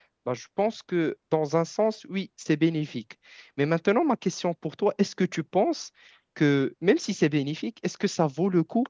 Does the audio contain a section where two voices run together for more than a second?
No

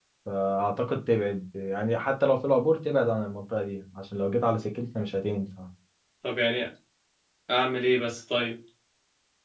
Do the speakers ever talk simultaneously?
No

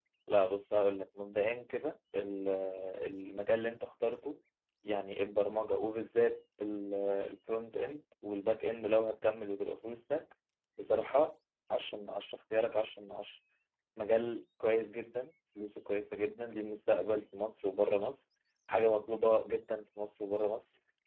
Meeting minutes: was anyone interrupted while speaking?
No

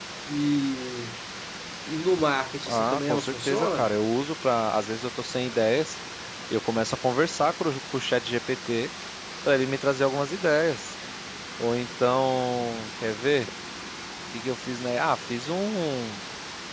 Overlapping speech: Yes, from 2.7 s

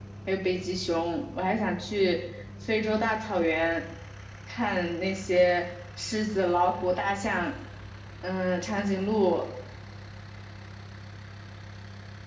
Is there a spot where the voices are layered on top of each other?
No

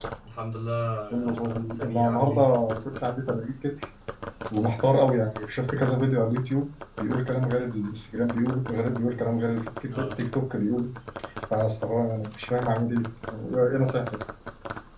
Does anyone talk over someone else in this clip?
Yes, from 1.1 s

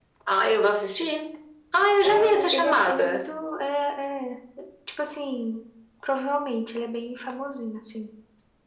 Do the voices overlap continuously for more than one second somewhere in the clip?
Yes, from 2.0 s

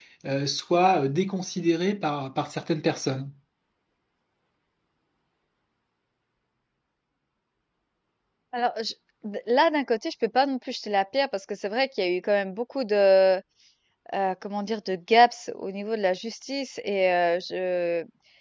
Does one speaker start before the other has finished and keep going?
No

